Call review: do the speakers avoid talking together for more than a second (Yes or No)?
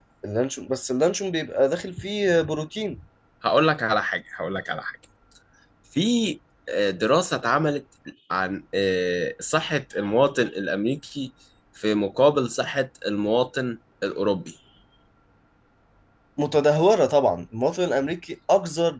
Yes